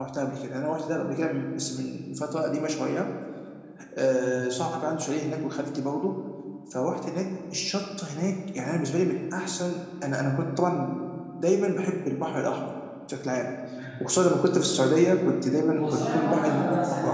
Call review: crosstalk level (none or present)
present